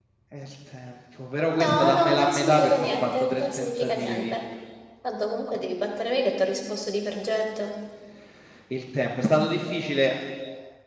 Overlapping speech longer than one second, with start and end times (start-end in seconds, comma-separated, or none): 1.6-4.3